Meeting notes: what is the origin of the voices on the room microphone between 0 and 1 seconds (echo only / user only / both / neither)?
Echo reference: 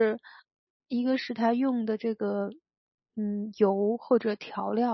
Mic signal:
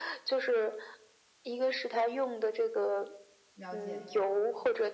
echo only